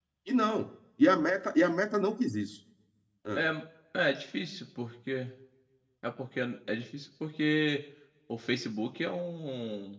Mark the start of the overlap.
none

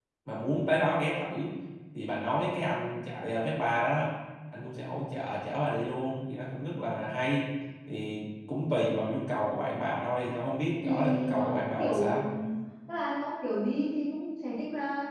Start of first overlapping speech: 10.8 s

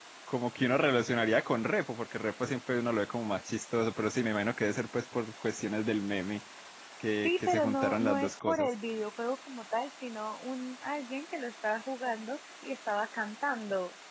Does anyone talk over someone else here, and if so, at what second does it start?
7.2 s

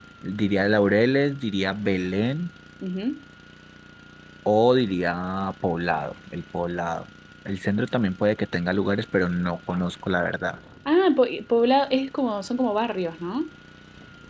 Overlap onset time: none

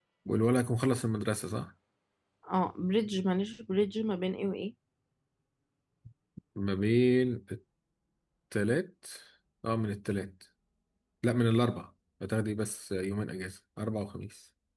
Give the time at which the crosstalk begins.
none

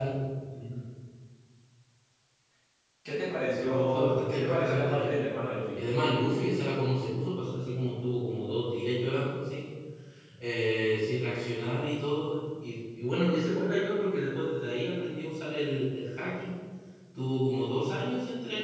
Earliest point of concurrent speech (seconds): 3.6 s

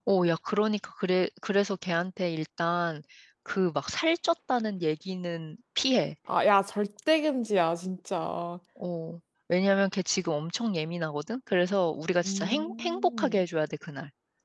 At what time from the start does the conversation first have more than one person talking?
12.2 s

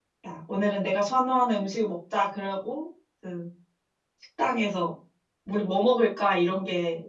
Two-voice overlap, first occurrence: none

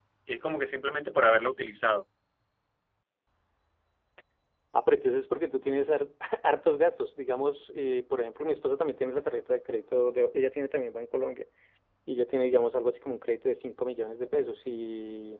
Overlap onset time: none

